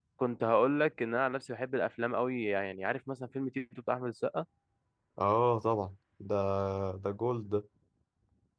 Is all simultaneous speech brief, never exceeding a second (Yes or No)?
Yes